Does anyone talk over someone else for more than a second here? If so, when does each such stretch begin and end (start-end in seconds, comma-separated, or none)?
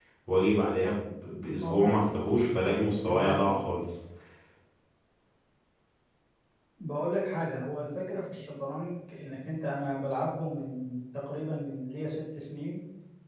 none